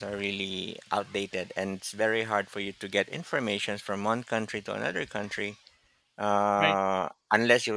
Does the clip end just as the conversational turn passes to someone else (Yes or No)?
No